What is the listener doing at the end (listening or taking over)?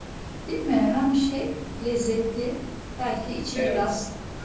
listening